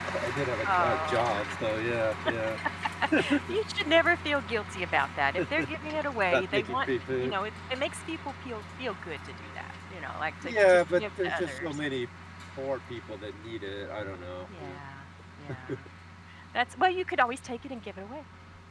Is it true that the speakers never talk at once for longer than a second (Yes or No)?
No